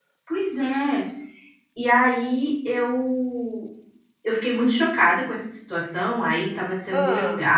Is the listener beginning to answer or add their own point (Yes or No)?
No